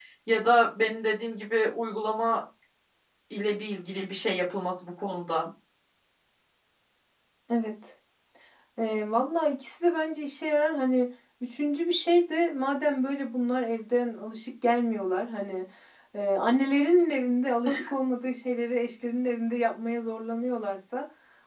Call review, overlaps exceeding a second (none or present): none